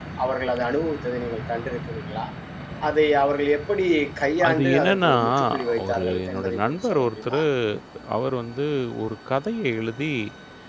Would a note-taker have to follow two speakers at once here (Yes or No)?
Yes